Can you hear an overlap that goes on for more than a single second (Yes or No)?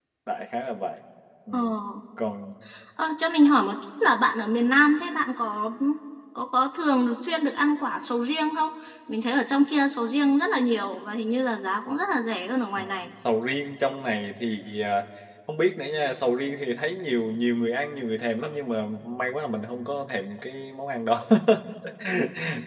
No